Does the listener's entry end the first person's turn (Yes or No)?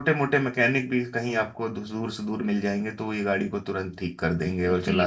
Yes